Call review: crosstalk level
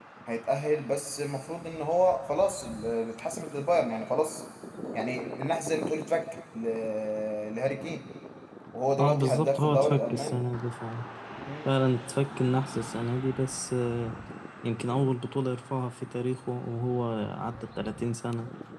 present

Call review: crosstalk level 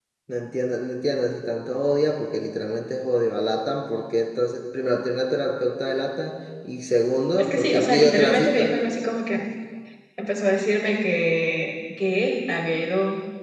present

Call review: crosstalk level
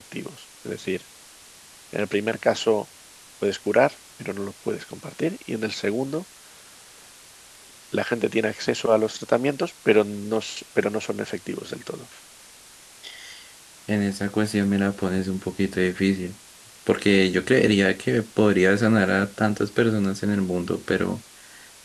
none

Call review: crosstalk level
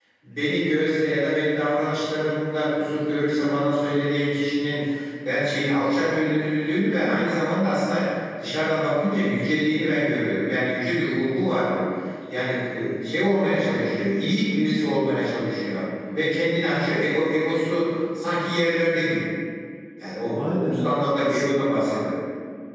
present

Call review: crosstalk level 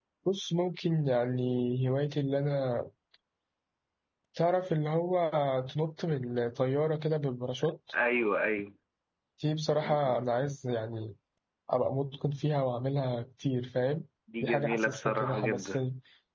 present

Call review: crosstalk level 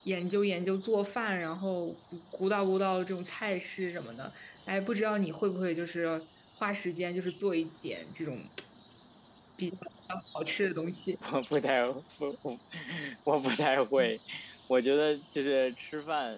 none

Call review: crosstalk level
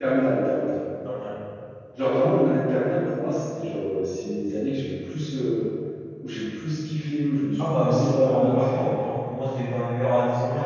present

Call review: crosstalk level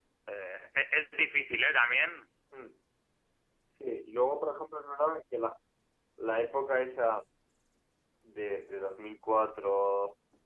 none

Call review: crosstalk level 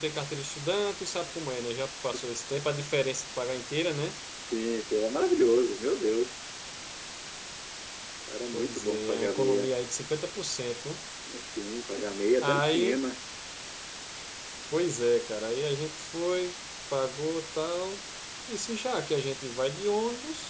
present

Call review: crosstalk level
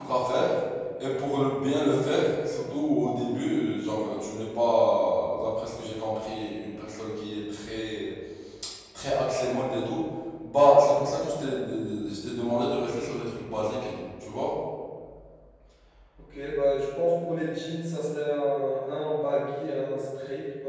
none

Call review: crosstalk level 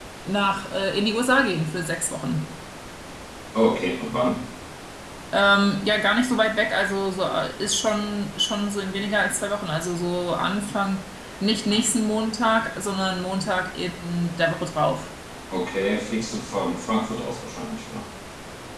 none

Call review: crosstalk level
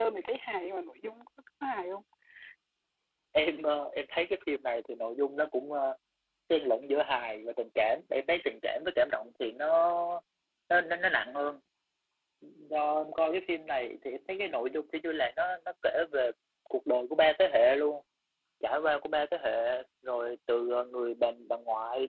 none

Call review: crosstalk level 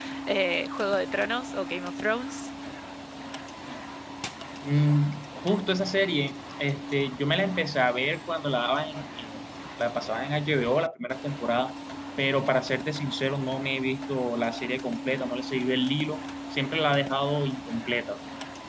none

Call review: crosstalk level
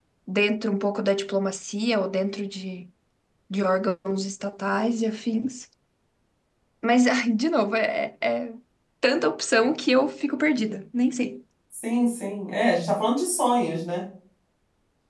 none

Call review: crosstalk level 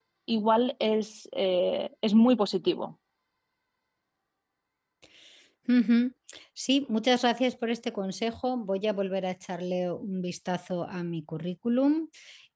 none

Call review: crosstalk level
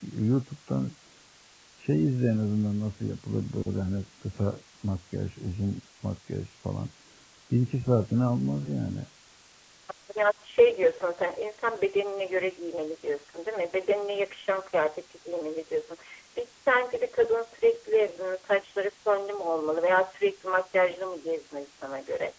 none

